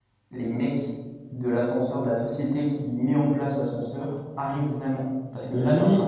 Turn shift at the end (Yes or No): Yes